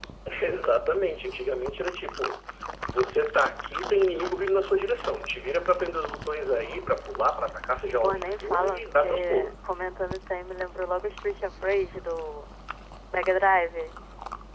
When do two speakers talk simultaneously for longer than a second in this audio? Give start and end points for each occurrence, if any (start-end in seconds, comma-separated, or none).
8.0-9.5